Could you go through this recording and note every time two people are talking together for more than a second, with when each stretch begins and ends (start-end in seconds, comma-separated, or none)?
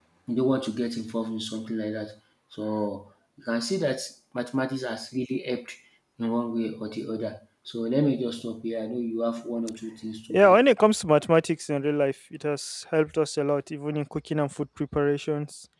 none